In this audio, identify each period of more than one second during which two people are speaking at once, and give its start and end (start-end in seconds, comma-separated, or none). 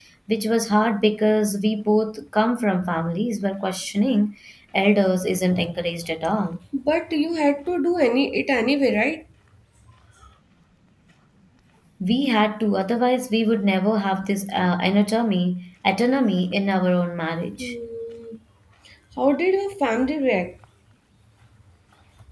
none